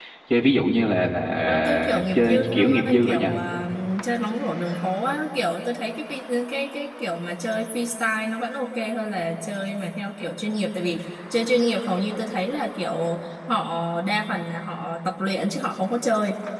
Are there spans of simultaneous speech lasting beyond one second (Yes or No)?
Yes